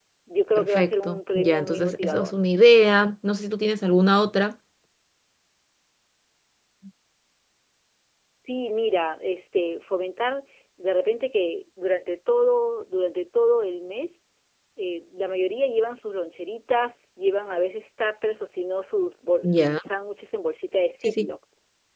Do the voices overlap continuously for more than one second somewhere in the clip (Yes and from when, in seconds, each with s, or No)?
Yes, from 0.6 s